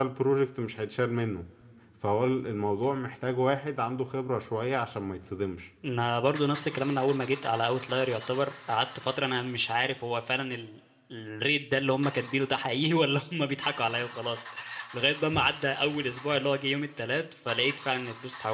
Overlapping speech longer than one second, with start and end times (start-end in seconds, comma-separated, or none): none